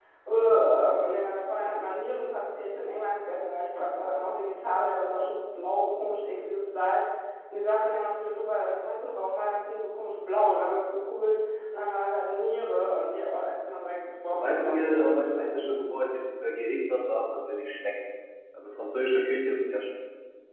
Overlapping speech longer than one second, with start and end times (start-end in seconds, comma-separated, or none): 14.3-15.6